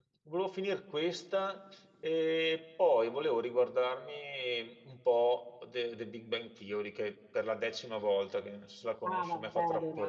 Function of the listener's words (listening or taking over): taking over